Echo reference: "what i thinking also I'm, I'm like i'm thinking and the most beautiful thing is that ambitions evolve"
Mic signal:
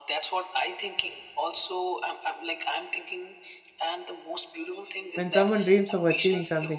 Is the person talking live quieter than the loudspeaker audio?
No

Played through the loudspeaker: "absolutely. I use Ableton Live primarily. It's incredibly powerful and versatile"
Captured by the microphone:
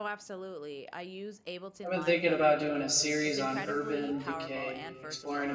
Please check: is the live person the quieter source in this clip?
No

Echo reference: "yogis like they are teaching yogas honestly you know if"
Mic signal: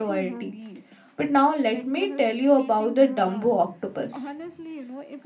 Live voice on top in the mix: Yes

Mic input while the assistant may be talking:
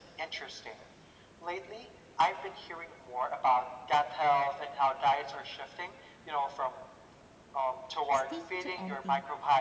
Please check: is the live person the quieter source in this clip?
Yes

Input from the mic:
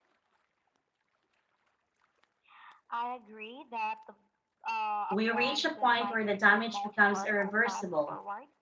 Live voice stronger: Yes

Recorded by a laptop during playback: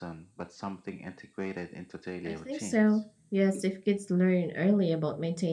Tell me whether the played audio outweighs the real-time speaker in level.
No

